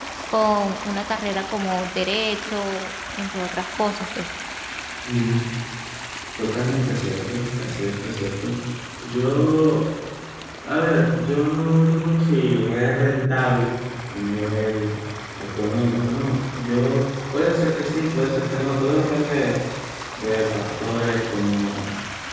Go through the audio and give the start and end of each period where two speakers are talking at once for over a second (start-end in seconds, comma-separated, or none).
none